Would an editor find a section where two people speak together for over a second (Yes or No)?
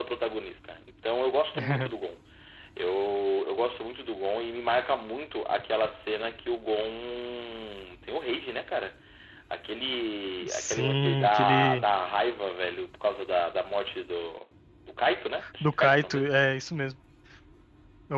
Yes